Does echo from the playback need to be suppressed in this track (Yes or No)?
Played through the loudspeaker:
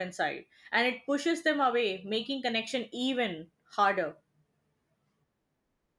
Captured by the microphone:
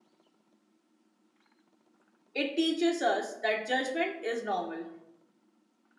No